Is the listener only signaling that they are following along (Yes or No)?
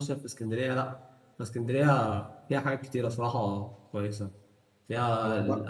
Yes